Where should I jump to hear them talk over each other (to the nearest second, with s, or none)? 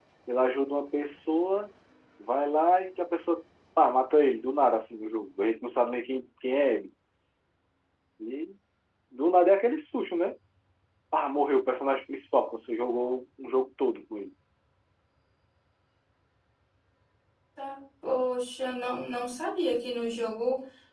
none